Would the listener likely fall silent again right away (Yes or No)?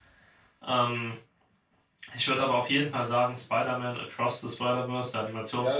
No